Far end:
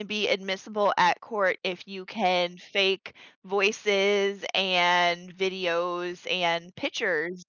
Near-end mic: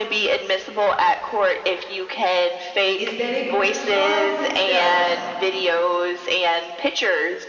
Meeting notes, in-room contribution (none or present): present